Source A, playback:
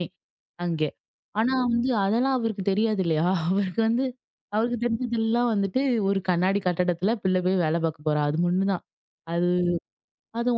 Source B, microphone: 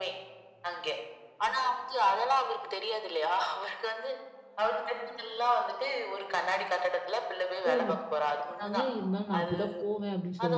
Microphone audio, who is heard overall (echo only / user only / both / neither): both